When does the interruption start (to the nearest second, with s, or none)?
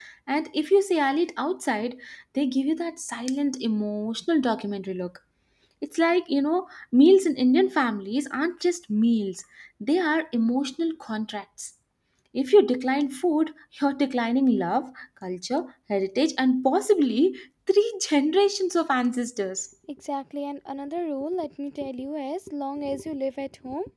none